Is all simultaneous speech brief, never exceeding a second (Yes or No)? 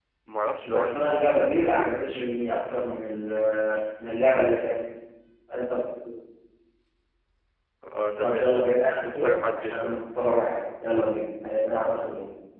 No